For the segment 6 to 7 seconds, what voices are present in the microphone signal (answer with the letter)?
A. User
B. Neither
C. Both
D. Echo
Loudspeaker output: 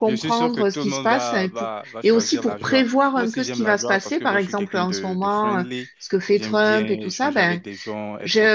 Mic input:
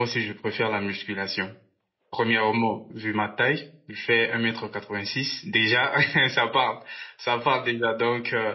A